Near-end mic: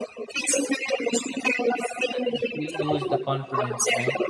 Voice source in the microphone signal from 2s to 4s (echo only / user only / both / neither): both